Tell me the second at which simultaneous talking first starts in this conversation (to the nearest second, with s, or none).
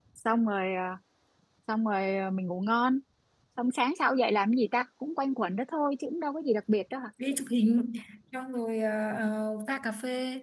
none